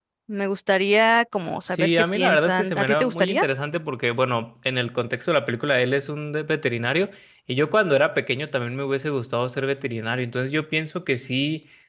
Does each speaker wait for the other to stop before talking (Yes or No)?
No